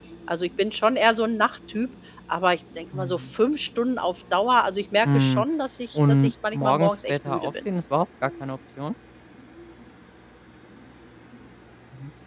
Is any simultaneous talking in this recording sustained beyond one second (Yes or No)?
Yes